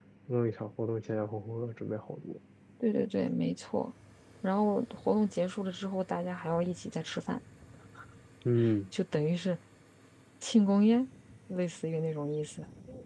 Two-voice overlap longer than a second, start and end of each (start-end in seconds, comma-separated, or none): none